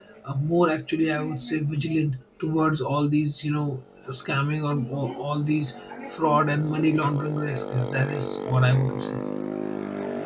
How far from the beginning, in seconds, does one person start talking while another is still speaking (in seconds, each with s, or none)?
none